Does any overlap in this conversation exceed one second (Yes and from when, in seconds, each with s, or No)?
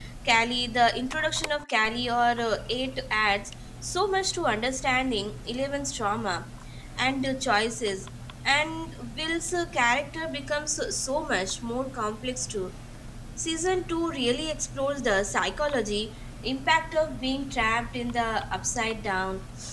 No